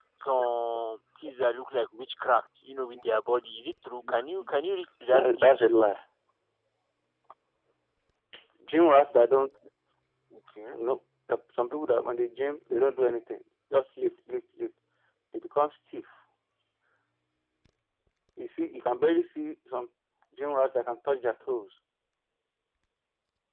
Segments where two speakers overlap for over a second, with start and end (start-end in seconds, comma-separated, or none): none